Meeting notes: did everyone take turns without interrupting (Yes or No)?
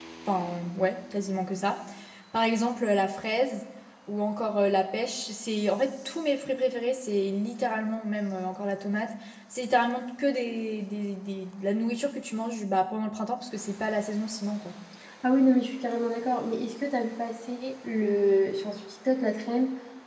Yes